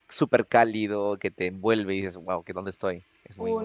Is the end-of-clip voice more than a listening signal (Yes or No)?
Yes